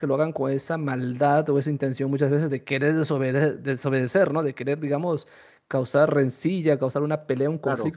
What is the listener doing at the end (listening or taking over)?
listening